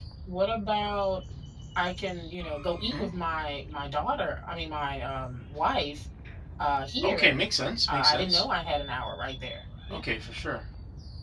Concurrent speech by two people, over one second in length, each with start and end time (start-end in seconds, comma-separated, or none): none